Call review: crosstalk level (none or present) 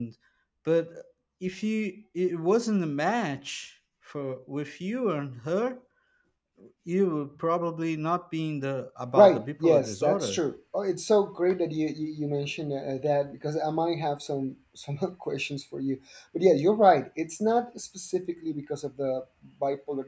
present